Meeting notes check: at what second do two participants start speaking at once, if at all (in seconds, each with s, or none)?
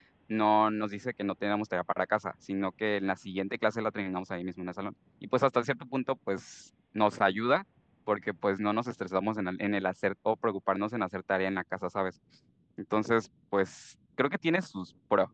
none